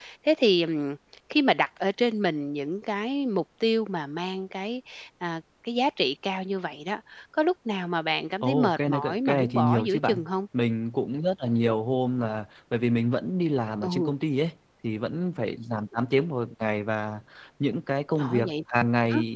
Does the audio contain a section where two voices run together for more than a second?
Yes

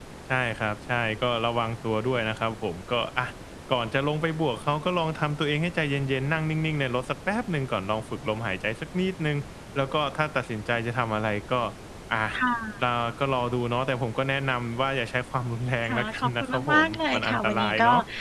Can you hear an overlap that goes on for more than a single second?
Yes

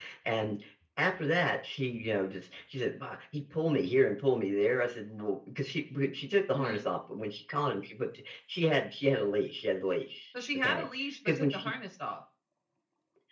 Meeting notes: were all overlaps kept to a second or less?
Yes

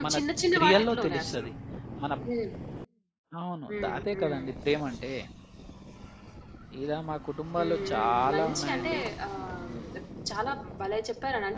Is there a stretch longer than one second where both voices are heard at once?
Yes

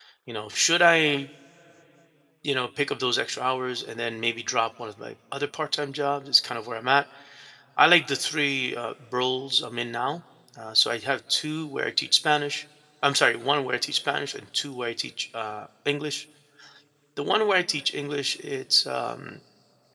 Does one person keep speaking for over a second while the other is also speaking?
No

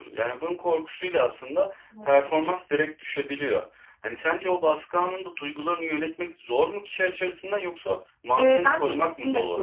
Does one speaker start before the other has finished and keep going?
Yes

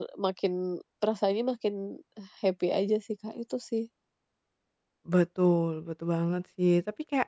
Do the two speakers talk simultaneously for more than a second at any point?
No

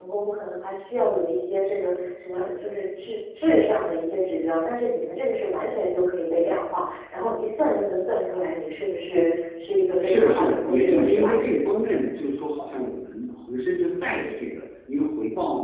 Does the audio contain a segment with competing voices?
Yes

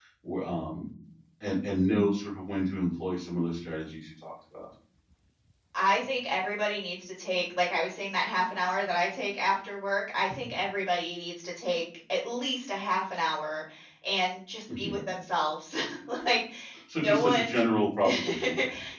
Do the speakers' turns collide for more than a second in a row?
No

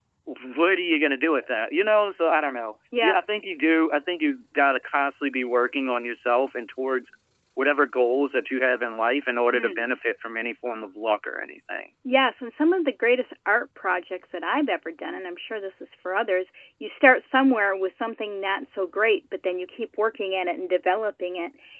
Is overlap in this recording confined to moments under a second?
Yes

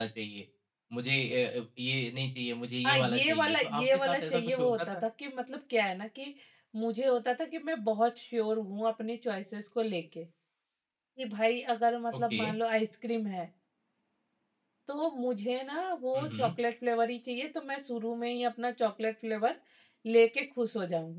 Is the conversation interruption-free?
No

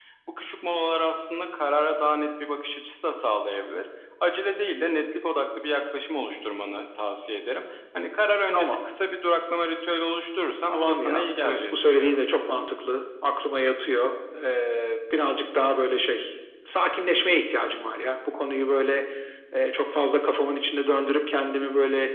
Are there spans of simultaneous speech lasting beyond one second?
Yes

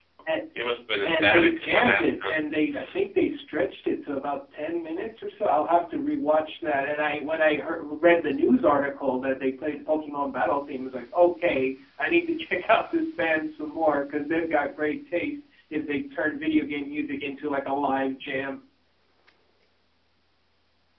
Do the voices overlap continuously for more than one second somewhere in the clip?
Yes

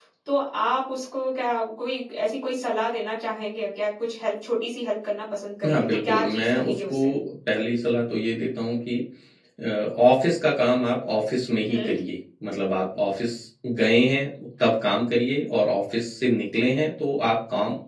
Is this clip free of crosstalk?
No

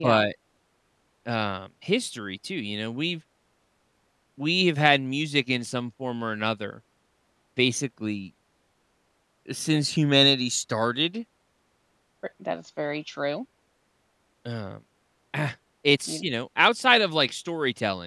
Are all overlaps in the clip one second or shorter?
Yes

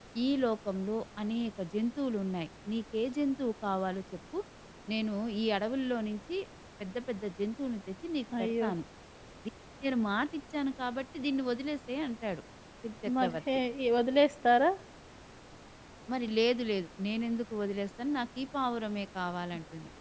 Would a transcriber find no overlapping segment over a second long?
Yes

